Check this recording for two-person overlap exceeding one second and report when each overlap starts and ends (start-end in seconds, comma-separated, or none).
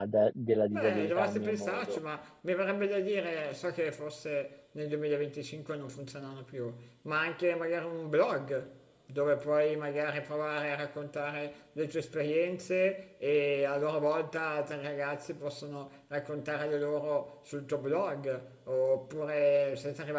0.7-2.0